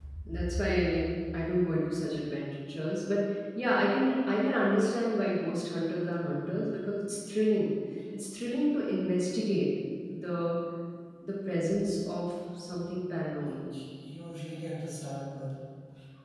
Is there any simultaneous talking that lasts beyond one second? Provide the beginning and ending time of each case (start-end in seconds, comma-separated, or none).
none